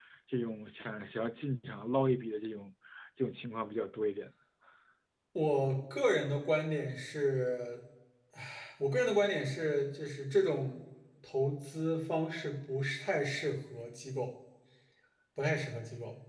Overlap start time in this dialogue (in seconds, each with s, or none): none